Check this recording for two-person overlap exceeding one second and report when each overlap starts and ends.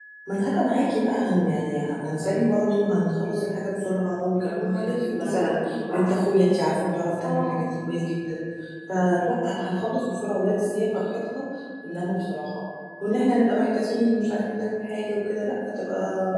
4.4-6.1

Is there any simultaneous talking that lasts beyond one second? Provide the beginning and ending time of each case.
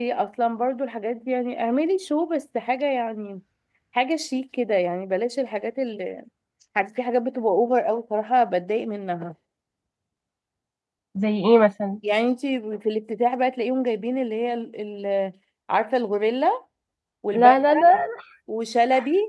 none

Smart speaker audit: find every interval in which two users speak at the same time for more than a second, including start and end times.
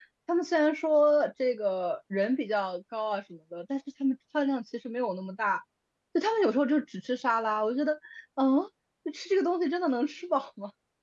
none

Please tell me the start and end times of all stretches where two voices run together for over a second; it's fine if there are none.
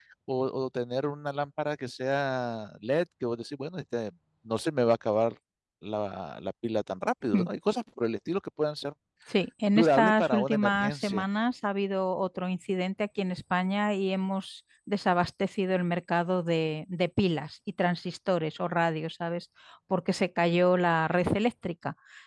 9.8-11.2

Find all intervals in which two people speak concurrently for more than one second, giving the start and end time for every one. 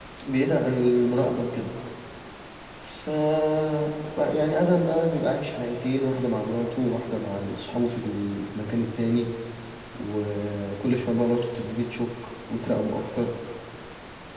none

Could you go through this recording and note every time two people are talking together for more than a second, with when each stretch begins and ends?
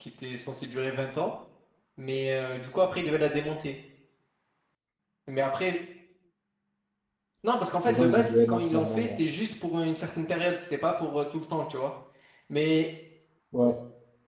7.8-9.2

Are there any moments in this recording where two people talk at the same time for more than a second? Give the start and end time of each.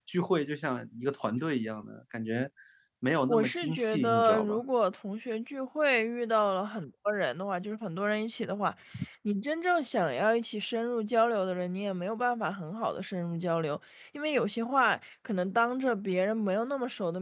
3.3-4.6

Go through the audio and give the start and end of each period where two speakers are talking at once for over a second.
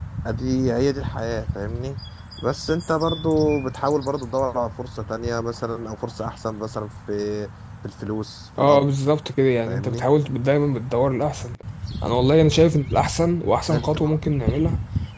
none

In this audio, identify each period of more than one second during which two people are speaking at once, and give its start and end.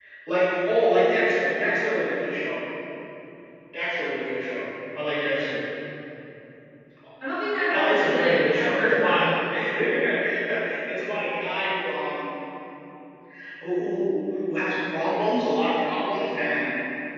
7.7-9.3

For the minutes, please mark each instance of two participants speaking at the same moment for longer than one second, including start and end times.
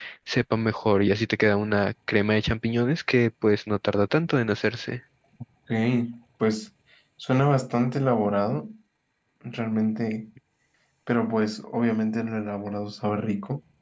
none

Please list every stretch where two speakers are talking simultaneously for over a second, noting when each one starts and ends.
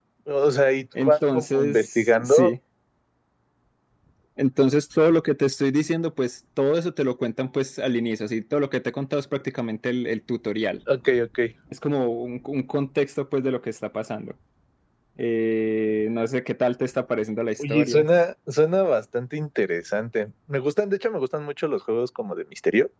1.0-2.5

